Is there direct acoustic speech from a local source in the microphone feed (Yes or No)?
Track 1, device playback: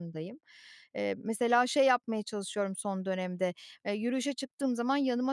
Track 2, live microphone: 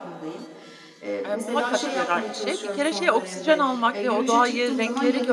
Yes